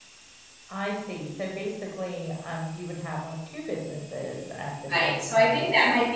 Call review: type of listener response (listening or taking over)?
taking over